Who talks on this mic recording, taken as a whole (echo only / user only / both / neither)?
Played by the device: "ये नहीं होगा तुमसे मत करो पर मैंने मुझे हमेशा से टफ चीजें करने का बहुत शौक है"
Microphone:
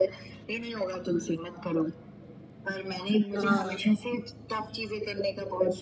both